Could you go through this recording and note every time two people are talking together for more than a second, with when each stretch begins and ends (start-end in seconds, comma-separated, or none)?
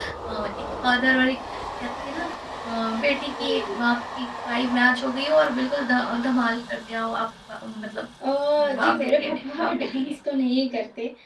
8.8-10.2